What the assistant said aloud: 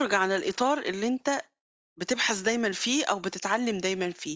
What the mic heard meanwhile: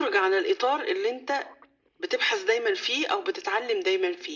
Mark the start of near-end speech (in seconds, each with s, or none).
none